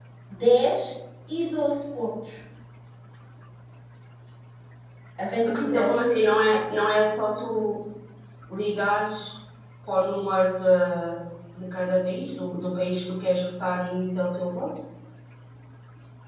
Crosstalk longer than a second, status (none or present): none